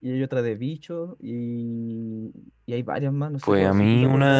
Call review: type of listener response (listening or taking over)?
taking over